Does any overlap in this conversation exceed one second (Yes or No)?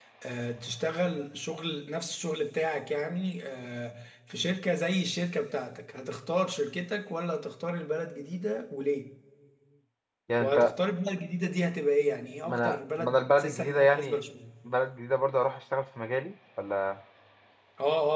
Yes